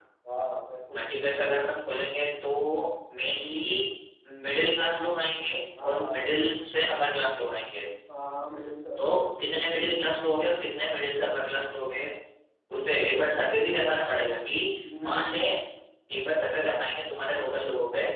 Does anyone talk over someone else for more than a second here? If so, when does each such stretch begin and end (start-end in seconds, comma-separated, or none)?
none